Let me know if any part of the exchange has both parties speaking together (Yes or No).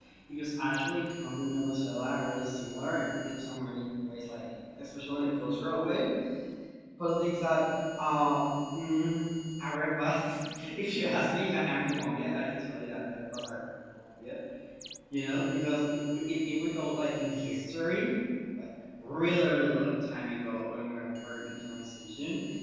No